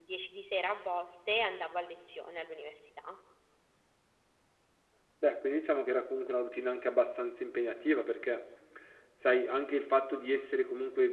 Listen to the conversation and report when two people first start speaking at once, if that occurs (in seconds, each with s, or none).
none